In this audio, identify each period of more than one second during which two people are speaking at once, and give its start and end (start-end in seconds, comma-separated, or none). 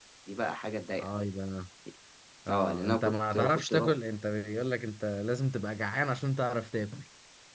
2.5-3.9